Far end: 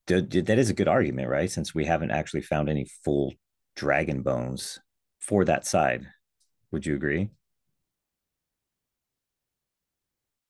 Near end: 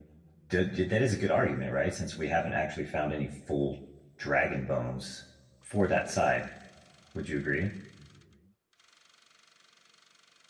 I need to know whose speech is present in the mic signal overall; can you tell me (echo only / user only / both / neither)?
echo only